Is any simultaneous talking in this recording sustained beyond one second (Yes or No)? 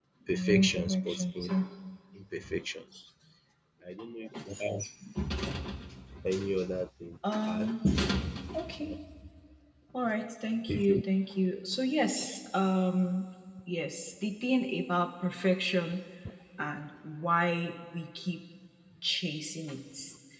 Yes